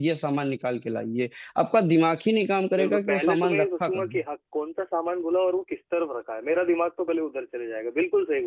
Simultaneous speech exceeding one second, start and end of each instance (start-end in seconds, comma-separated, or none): 2.7-4.2